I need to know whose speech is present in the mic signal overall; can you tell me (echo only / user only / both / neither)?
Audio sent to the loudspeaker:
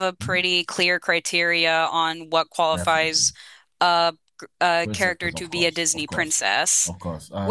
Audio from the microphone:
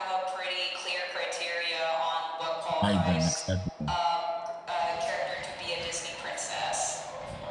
both